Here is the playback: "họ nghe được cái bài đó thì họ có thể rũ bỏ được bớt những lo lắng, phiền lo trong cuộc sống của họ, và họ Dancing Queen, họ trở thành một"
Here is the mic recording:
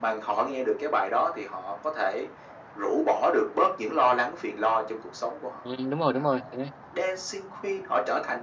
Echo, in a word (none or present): present